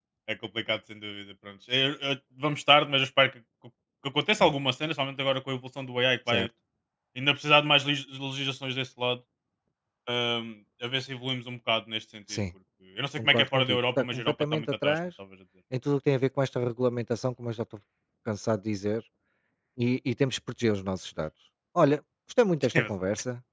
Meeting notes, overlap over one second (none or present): present